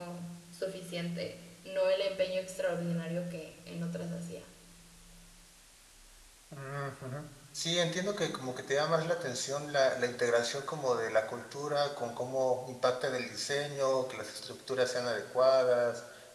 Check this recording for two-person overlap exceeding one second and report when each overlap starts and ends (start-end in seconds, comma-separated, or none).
none